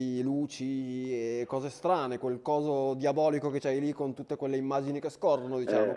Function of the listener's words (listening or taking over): taking over